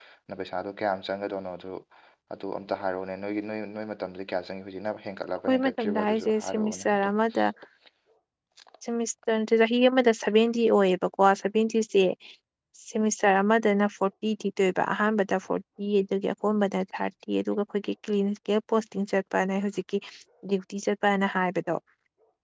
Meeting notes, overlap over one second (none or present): present